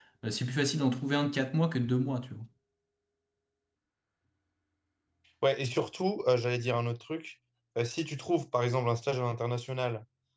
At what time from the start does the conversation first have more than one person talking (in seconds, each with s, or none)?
none